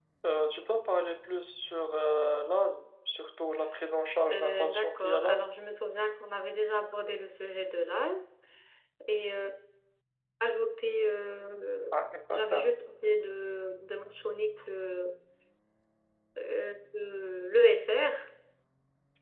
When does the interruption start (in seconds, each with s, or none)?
4.3 s